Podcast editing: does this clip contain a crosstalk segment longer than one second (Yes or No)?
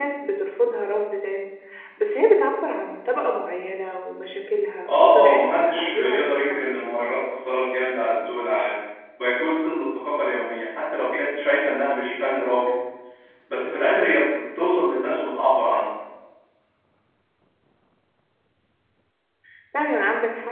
Yes